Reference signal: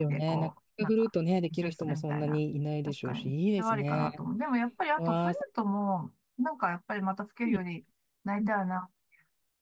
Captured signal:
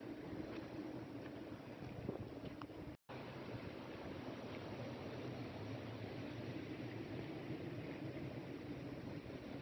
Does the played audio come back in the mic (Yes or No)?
No